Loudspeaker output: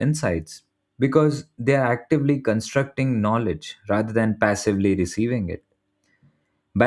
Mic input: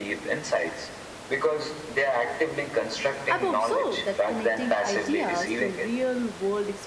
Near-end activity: present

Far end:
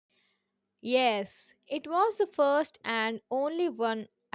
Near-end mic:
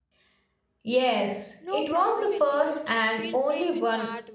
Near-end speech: present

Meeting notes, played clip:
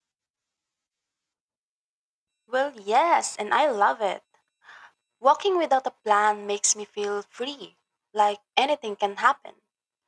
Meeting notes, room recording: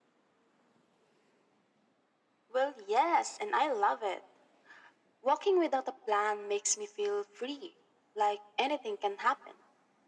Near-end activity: none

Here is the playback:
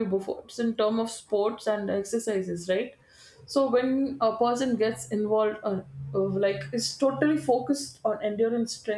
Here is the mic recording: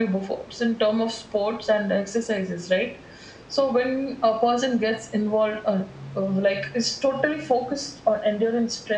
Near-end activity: none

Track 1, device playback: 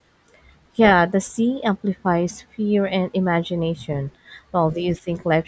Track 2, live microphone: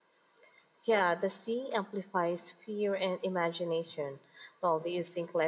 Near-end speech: none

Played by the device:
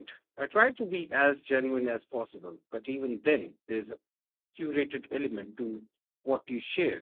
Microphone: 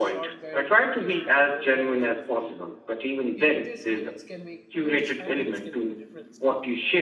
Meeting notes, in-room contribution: present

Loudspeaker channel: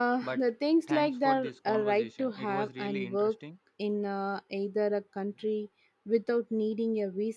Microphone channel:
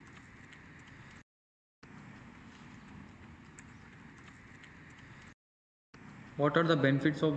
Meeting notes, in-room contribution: present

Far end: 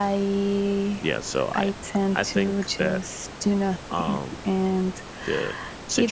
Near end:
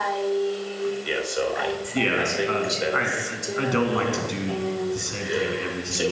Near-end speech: present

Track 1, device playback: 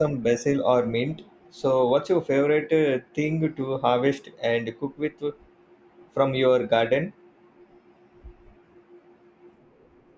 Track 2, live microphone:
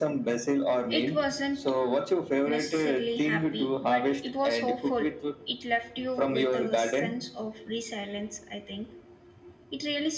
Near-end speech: present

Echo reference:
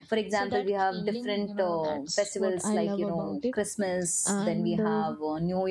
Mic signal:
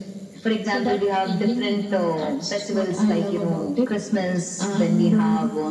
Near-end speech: none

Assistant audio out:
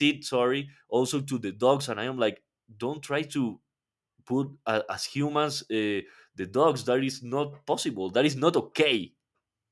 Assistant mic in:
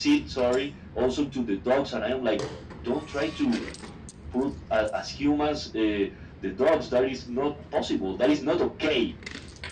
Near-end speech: none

